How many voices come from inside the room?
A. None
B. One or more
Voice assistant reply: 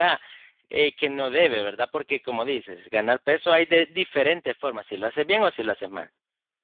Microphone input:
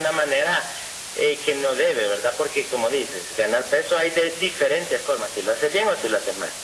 A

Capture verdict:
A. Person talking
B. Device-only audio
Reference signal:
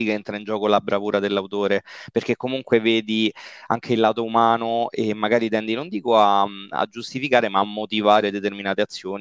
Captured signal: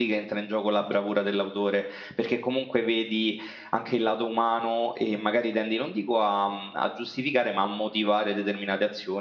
B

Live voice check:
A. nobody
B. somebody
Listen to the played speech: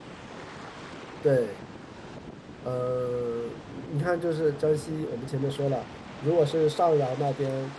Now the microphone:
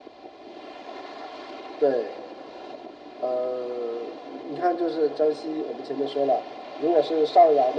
A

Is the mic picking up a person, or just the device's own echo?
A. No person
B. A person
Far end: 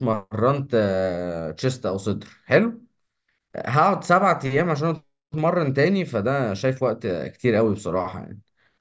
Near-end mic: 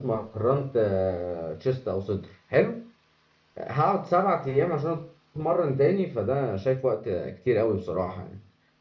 A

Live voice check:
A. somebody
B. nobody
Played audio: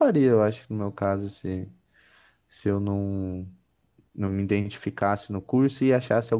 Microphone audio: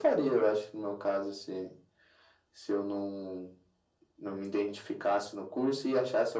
B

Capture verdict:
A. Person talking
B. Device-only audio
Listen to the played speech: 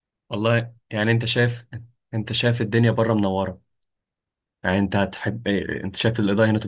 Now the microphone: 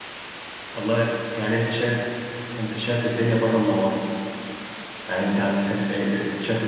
B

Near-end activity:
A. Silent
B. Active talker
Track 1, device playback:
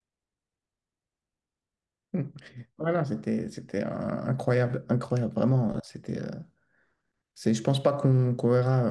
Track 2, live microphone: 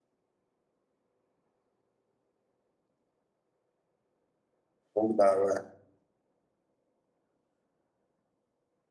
B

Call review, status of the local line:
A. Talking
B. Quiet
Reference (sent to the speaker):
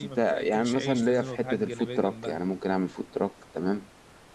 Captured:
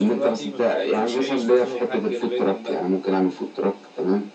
B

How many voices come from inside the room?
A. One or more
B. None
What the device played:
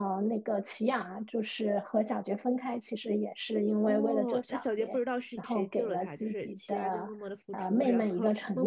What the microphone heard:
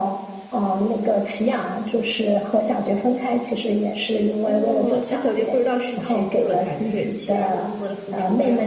B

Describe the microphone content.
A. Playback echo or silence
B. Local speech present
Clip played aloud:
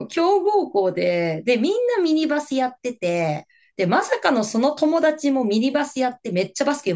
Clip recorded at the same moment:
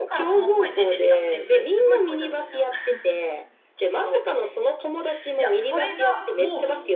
B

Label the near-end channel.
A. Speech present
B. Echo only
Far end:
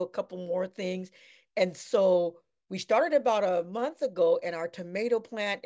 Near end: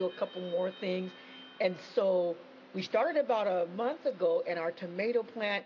B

